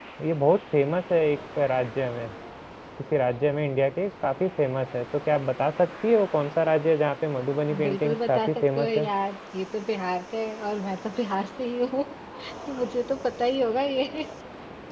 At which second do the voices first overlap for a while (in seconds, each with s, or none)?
7.7 s